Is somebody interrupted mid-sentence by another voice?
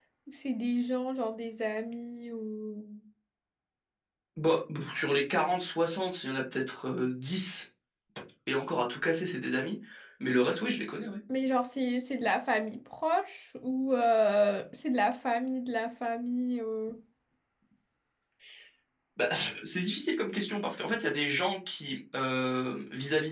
No

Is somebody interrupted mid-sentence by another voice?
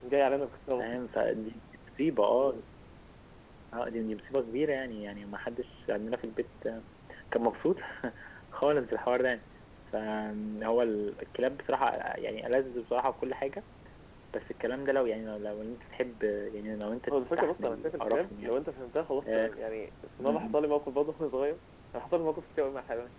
Yes, from 17.1 s

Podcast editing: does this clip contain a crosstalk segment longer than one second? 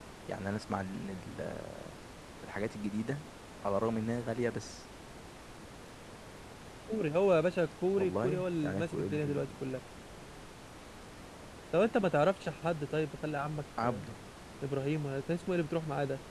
Yes, from 8.0 s

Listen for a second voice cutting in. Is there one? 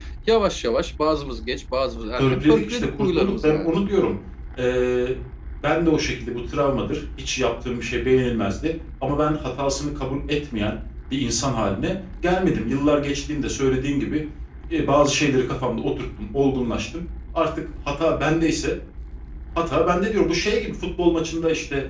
Yes, from 2.2 s

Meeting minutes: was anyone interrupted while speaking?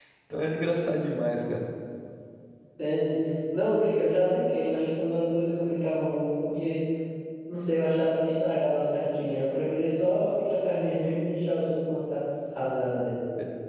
No

